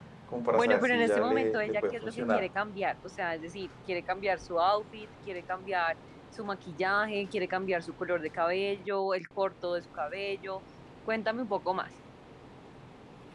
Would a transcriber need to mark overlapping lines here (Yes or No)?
Yes